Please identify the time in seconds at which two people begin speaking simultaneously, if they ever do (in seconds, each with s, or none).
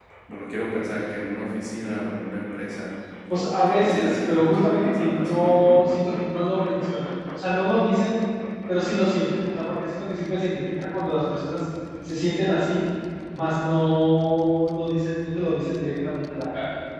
3.3 s